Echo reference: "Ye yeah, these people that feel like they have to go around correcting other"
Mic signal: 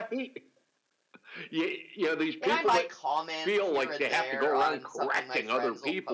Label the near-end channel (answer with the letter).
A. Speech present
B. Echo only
A